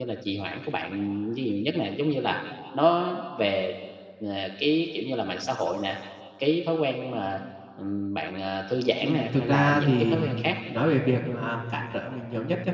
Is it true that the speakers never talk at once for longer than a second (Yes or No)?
No